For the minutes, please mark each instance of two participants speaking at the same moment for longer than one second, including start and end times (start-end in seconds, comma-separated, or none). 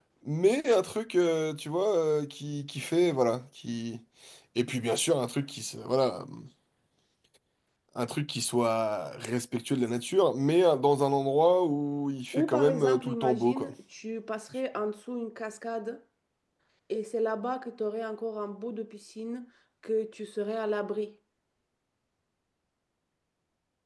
12.3-13.7